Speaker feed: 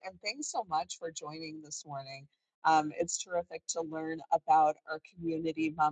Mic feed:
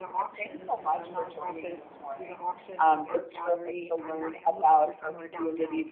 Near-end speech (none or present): present